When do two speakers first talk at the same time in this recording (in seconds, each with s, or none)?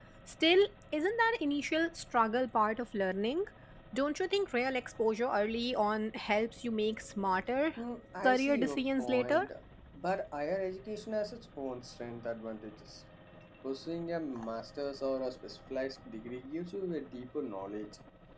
8.2 s